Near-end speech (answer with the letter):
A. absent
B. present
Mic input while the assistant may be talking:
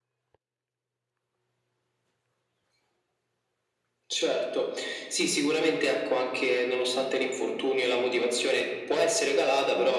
A